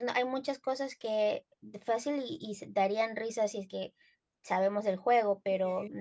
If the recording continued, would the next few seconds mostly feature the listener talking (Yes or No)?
No